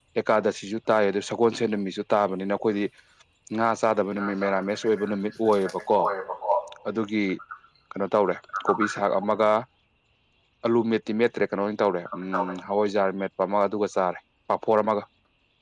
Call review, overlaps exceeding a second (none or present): present